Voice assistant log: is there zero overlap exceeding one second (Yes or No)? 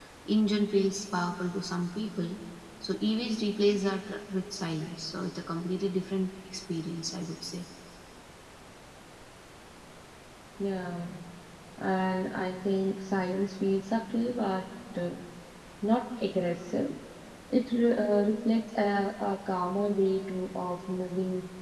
Yes